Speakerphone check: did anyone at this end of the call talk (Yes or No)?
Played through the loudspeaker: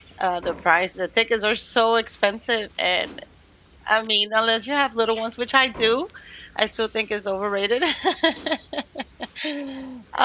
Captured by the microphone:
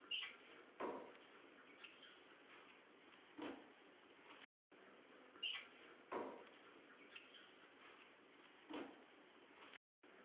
No